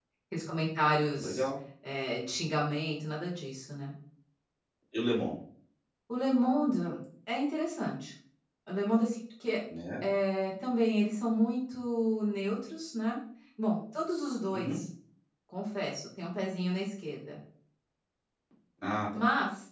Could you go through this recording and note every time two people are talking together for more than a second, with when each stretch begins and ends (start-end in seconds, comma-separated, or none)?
none